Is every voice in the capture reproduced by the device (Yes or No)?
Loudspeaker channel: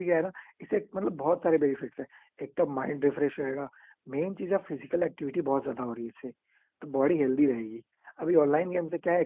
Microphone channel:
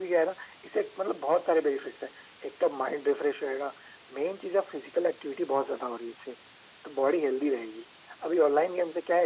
Yes